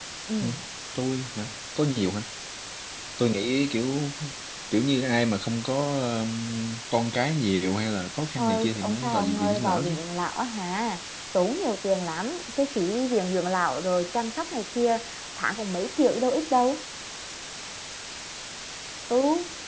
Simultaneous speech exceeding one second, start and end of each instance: 8.4-9.9

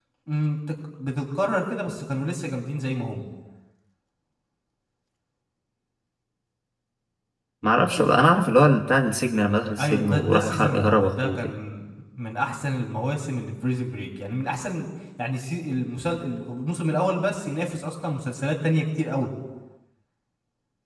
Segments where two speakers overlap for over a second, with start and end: 9.8-11.5

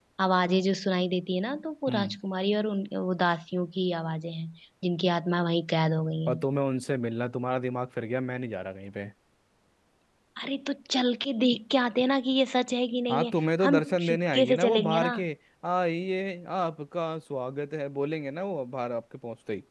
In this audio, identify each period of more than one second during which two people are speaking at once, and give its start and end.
13.1-15.1

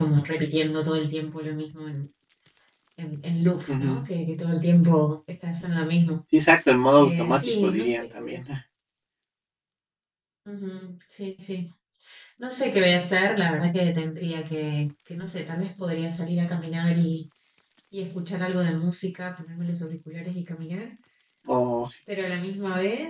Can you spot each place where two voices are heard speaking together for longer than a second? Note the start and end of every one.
7.0-8.4

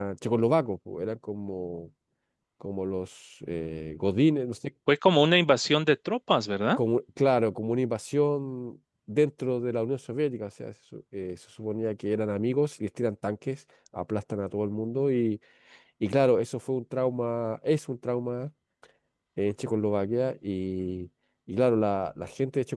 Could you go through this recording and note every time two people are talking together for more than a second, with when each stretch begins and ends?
none

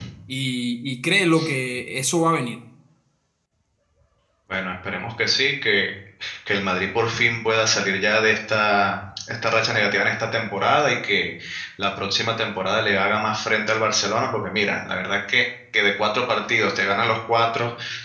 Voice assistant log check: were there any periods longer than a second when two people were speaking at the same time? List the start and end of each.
none

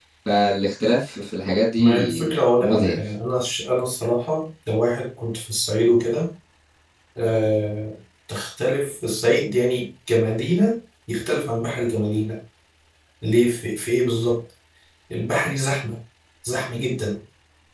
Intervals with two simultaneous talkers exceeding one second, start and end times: 1.8-3.0

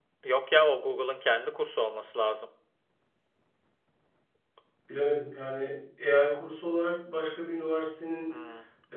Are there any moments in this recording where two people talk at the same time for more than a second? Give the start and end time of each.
none

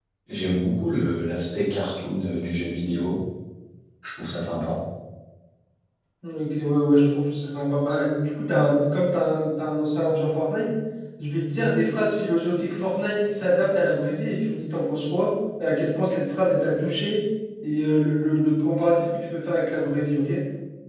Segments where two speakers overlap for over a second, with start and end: none

